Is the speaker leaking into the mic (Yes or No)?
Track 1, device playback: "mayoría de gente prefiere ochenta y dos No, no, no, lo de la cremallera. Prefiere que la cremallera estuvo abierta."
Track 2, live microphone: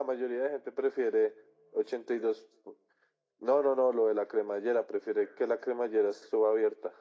Yes